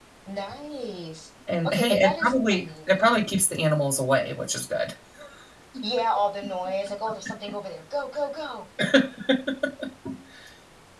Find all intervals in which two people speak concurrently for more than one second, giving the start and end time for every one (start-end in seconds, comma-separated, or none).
1.6-3.1